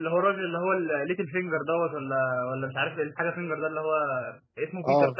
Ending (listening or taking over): listening